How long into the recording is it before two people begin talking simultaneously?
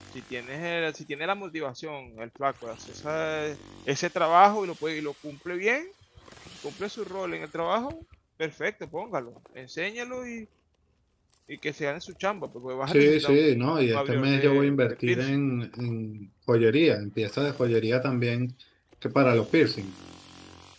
12.9 s

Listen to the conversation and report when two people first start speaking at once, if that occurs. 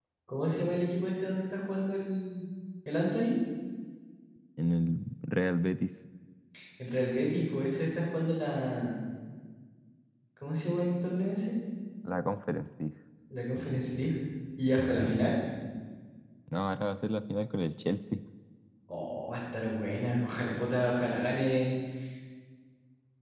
none

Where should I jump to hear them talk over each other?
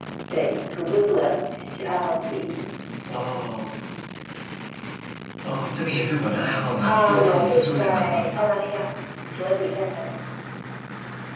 6.8 s

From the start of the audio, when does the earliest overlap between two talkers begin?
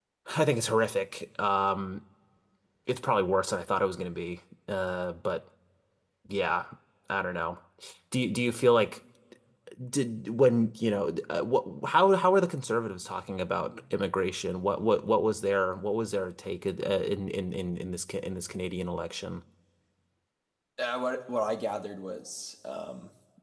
none

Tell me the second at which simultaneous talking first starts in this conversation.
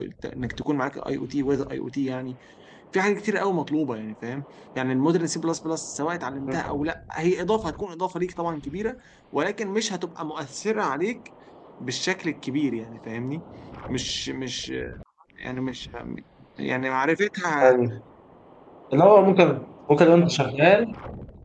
none

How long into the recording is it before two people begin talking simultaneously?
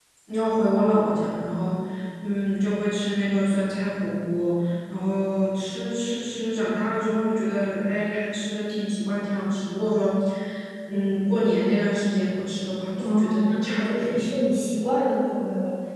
13.0 s

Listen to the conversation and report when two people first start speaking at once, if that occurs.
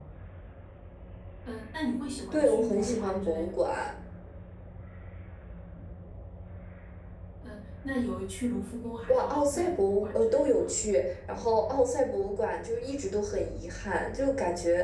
2.3 s

